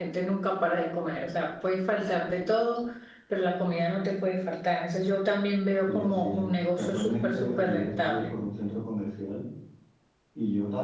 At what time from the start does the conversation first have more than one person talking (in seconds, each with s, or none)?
5.8 s